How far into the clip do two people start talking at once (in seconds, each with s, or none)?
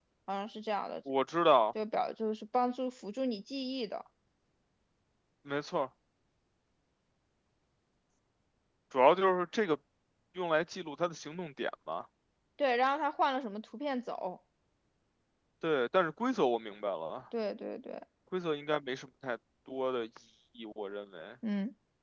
none